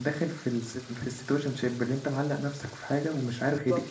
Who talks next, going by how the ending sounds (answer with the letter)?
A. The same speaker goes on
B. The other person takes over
B